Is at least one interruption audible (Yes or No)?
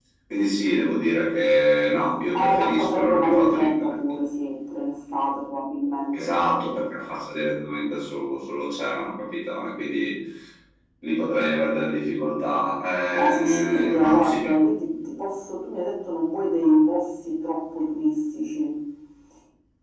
Yes